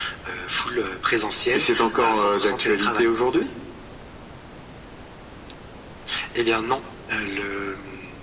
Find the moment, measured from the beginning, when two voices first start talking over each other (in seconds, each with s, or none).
1.5 s